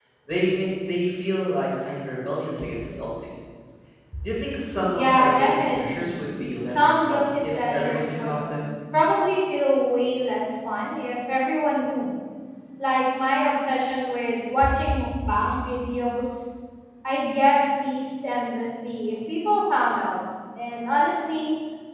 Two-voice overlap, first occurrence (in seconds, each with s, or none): 5.0 s